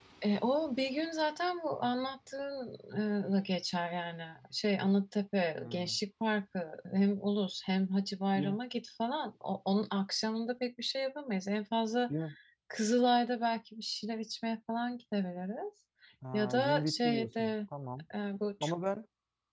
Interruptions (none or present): present